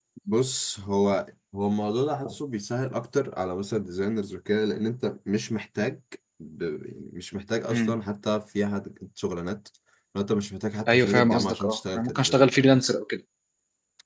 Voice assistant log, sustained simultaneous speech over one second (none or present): present